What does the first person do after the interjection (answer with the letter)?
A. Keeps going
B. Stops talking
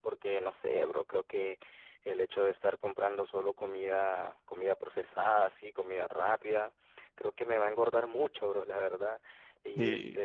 A